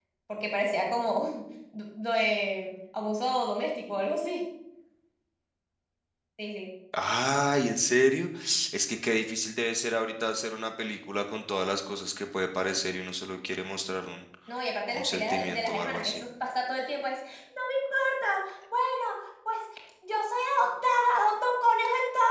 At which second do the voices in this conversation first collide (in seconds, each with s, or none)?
14.9 s